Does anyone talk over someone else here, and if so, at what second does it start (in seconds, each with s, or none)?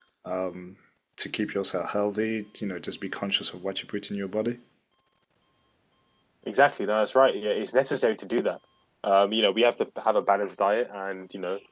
none